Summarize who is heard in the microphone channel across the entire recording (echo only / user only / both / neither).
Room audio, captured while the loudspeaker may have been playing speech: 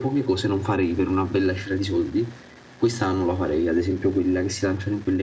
echo only